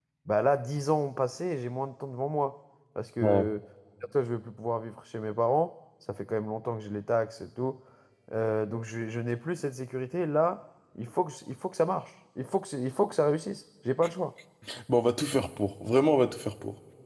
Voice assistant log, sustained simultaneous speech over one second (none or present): none